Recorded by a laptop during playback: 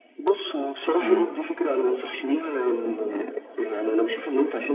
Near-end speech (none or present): present